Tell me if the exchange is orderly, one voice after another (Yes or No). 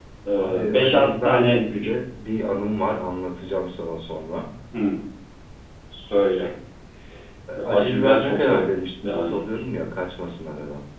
No